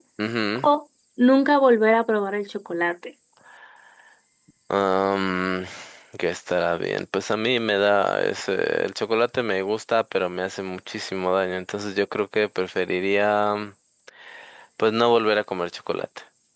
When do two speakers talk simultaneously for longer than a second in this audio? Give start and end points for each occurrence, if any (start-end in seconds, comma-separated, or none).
none